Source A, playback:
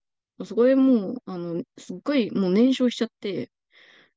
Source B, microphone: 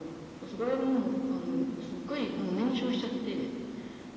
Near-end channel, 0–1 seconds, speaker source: echo only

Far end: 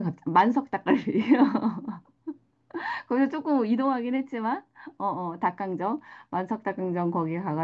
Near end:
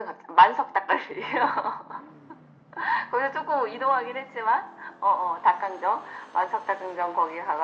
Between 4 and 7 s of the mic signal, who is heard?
echo only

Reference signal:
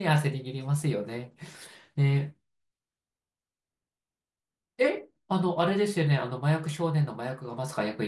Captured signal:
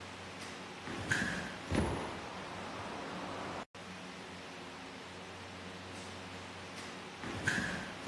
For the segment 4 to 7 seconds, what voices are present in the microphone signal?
neither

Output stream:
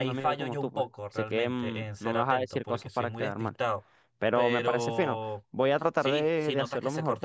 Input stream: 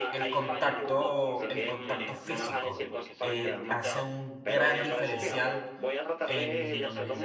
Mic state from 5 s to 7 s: both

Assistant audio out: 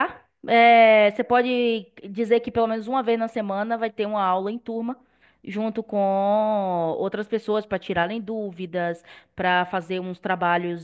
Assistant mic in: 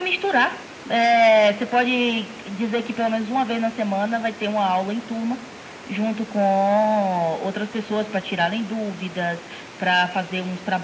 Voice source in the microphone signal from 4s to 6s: echo only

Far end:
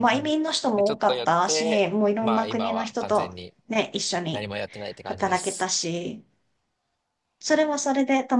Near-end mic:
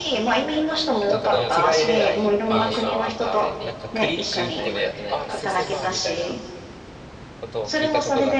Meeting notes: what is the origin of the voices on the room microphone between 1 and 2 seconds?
both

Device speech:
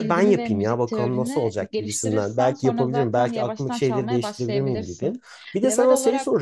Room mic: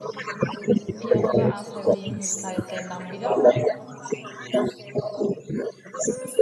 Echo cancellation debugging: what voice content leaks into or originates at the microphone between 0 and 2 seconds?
both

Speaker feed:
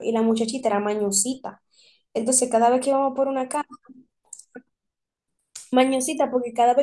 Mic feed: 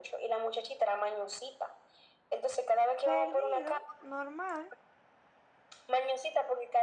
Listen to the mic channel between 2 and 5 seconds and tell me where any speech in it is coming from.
both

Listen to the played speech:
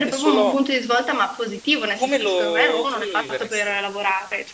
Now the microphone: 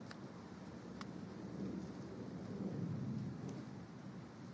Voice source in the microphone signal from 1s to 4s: neither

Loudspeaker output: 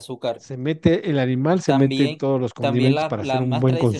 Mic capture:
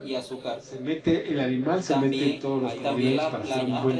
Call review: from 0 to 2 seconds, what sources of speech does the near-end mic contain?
echo only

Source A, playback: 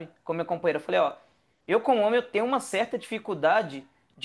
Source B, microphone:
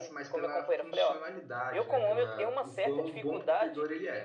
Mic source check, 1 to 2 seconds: both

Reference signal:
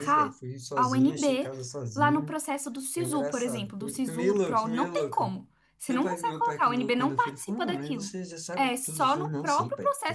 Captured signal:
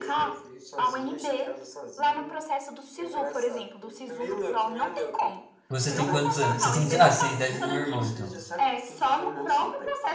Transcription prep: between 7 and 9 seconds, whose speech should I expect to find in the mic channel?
both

